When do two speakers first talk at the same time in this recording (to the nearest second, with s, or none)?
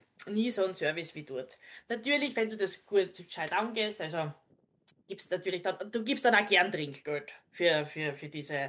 none